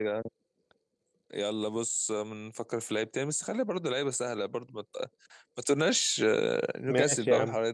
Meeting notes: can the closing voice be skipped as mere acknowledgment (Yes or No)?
No